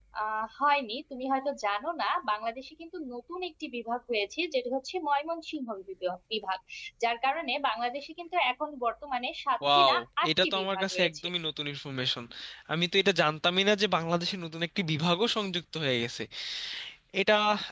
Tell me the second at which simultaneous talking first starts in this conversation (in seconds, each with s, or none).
9.6 s